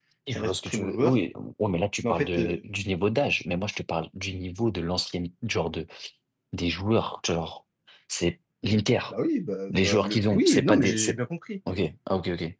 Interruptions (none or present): present